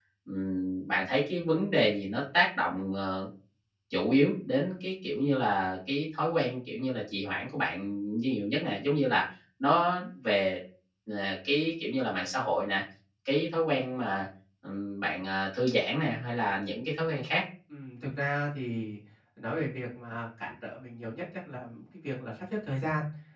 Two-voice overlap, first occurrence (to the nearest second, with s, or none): none